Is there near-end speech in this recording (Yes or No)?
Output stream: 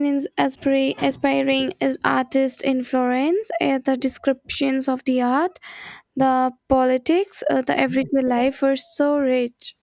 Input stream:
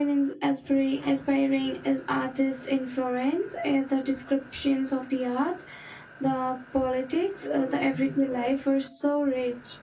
Yes